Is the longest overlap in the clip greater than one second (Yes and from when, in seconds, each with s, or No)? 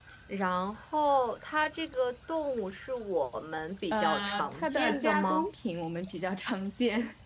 Yes, from 3.9 s